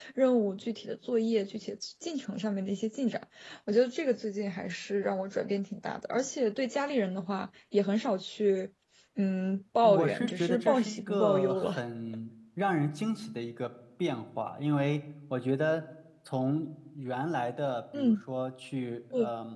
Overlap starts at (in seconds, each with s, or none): 9.8 s